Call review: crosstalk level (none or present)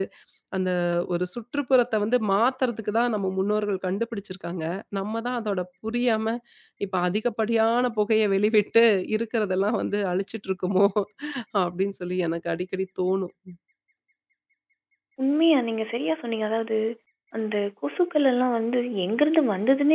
none